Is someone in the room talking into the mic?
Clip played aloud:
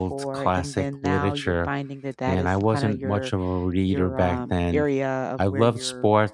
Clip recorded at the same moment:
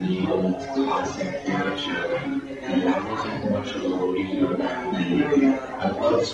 No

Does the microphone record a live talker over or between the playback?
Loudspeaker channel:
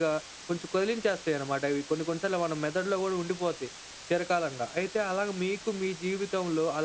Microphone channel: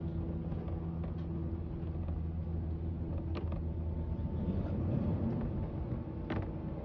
No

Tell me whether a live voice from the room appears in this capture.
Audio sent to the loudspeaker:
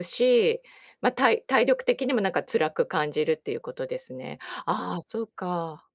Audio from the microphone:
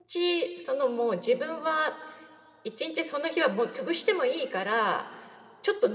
Yes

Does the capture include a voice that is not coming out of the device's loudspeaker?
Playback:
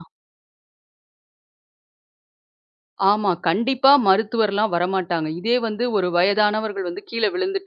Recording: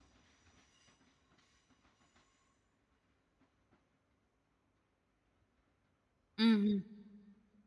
Yes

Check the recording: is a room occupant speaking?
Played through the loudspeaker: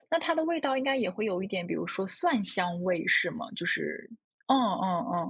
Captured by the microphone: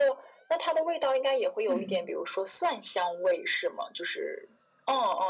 Yes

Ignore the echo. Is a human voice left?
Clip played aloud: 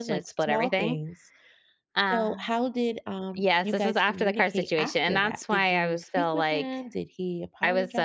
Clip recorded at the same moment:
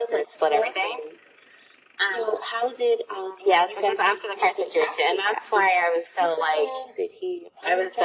No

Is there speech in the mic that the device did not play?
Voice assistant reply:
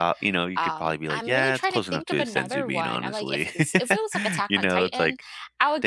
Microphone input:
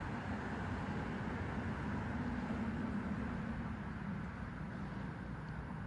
No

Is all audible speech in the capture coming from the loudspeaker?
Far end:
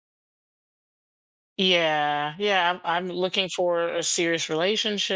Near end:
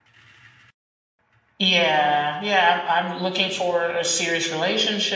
Yes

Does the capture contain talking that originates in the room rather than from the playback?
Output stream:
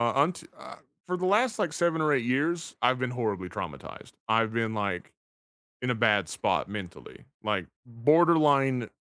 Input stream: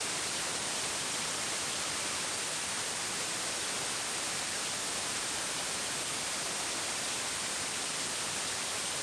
No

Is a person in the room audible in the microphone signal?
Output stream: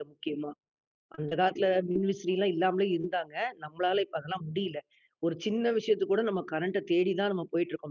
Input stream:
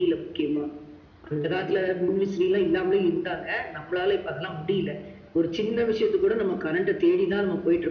No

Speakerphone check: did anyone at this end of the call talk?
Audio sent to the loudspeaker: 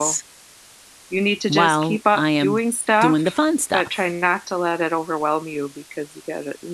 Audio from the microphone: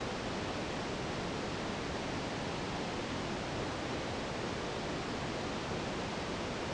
No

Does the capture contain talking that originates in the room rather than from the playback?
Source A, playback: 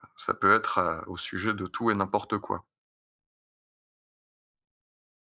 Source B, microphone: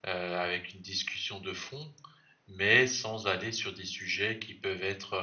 Yes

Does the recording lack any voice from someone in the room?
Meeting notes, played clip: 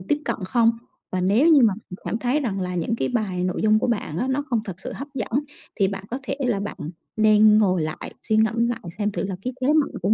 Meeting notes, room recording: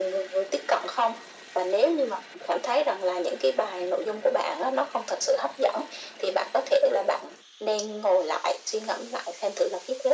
Yes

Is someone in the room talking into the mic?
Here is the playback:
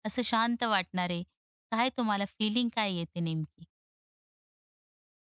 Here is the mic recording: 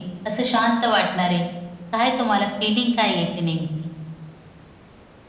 No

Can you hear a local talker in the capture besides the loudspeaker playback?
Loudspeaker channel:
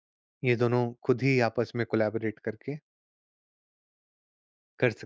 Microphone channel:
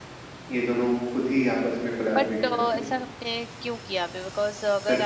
Yes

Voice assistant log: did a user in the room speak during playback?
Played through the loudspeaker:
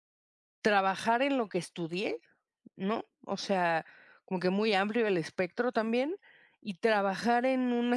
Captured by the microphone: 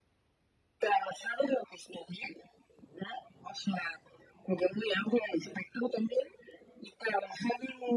No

